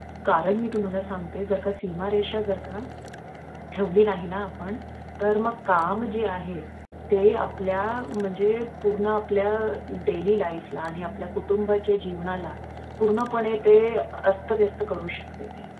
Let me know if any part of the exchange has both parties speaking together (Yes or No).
No